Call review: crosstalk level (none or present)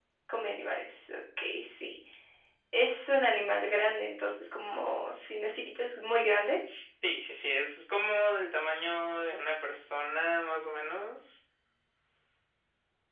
none